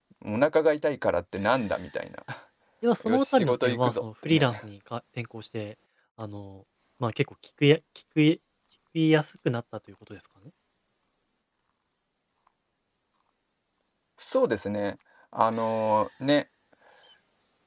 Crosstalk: present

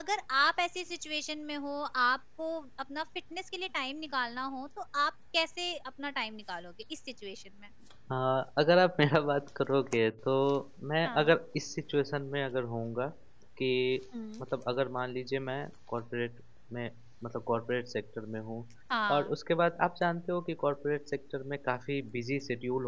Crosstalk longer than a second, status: none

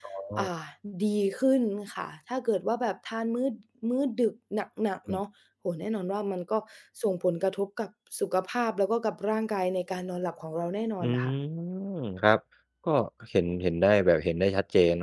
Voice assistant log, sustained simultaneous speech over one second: none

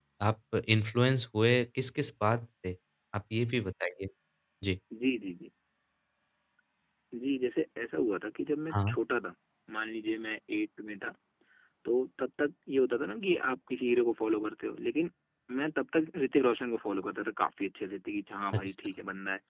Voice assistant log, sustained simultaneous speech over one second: none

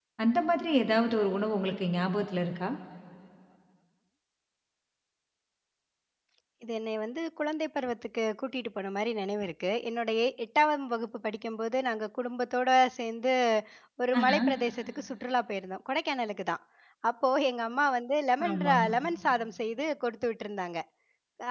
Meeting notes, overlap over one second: none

